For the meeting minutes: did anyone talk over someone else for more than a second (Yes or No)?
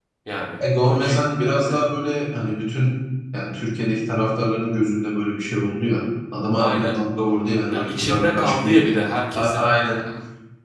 Yes